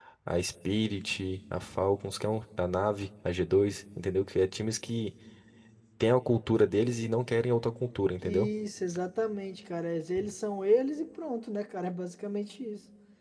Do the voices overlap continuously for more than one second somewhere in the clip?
No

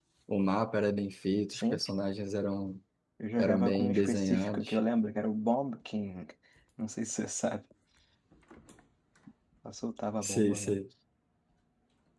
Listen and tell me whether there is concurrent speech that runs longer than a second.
Yes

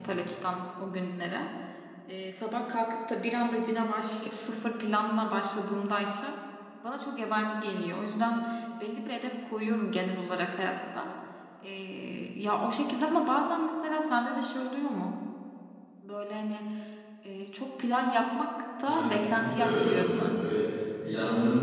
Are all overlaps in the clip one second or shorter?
No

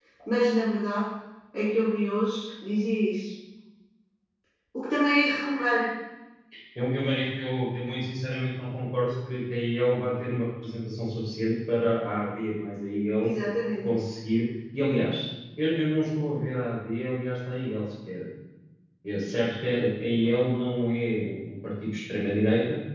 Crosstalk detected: No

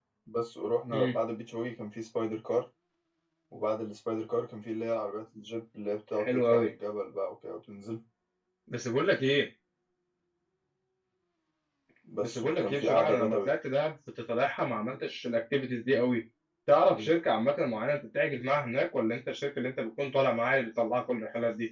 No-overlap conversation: No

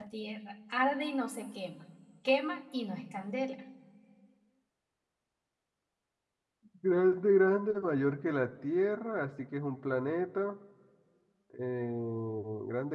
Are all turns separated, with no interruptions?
Yes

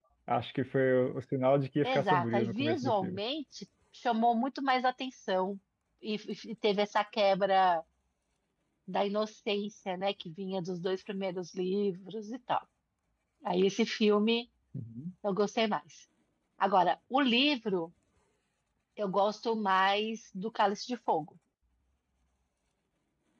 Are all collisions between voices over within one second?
No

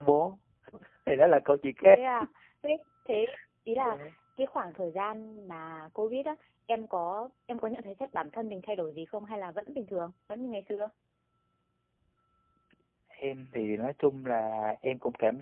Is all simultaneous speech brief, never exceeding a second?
Yes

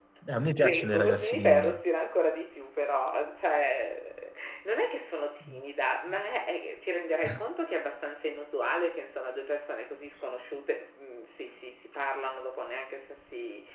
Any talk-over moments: Yes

